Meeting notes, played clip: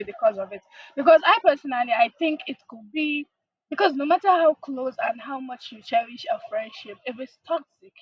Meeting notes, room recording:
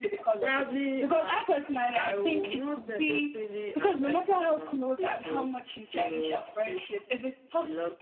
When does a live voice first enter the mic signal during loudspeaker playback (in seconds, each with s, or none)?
0.4 s